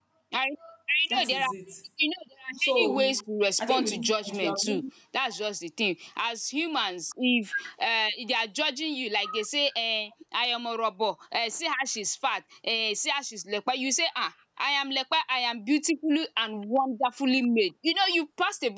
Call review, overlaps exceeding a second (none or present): present